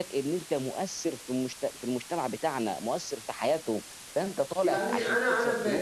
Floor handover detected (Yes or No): Yes